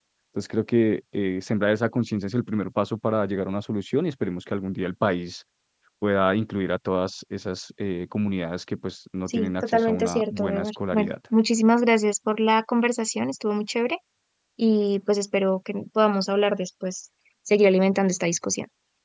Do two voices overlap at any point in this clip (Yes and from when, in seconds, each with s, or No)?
Yes, from 9.3 s